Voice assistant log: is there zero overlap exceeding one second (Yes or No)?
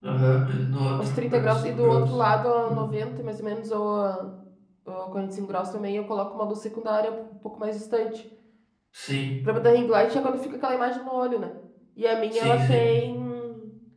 No